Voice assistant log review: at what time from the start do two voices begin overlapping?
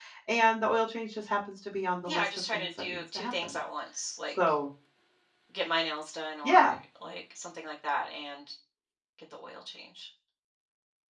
2.0 s

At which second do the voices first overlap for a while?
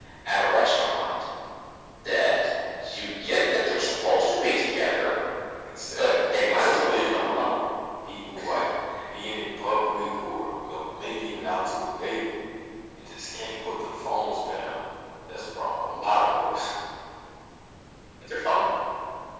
6.0 s

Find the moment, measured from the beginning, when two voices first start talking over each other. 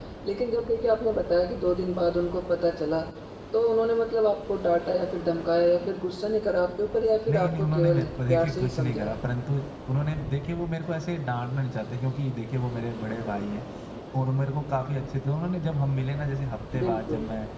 7.3 s

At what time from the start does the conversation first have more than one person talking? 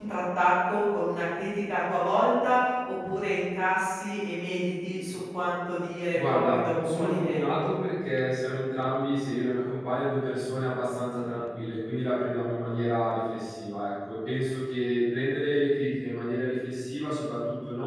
6.1 s

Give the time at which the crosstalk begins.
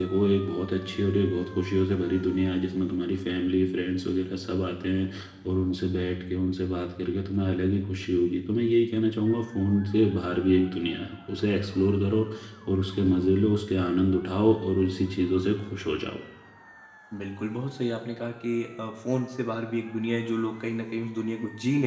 none

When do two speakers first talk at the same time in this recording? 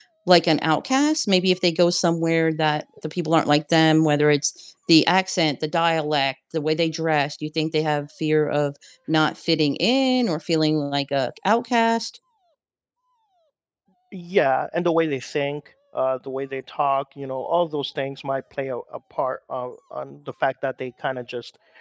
none

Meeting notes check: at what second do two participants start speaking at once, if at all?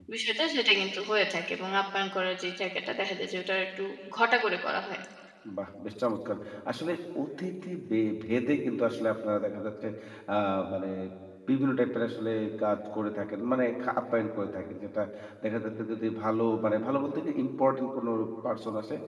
none

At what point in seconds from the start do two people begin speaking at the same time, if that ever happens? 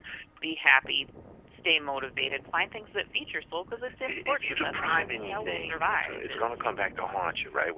4.1 s

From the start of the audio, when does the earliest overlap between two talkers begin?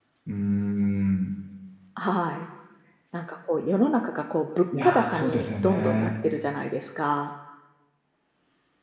4.7 s

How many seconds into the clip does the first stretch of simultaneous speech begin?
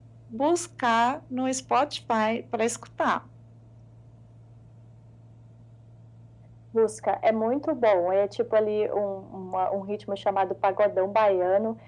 none

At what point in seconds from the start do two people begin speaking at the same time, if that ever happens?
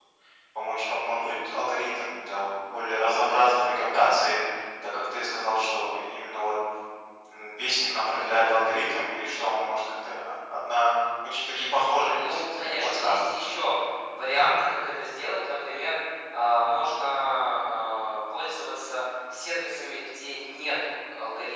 12.1 s

